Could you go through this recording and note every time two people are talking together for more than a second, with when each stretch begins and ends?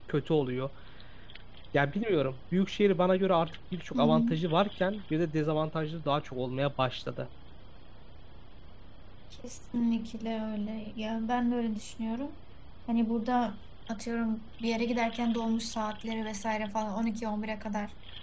none

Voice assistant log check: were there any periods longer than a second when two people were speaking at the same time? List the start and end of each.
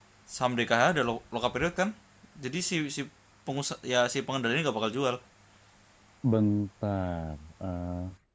none

